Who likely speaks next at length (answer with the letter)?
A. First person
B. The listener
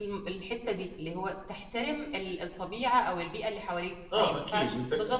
B